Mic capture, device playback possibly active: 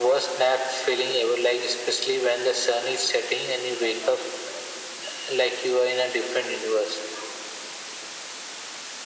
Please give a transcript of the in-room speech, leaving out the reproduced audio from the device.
none

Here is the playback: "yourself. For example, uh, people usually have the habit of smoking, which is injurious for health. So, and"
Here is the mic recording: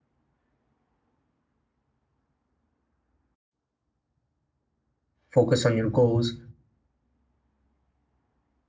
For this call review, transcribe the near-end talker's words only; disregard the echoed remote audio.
focus on your goals

